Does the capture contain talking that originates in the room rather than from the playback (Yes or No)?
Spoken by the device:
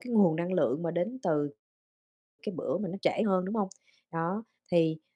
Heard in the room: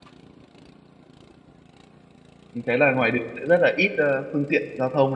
Yes